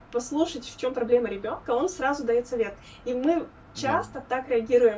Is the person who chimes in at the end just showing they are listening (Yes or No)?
Yes